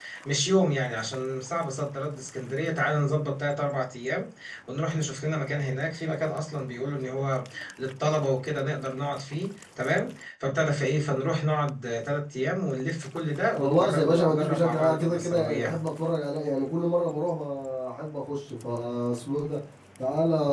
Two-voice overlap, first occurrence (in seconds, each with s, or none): 13.6 s